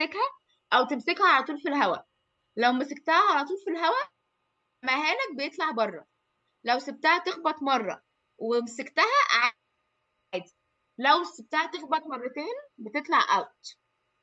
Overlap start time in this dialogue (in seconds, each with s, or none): none